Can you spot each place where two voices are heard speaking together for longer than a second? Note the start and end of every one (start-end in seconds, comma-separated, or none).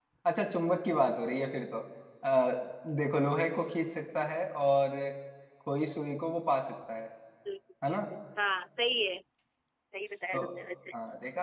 none